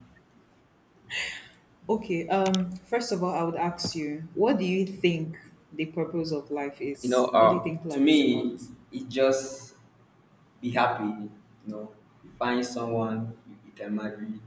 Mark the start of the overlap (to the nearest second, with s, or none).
7 s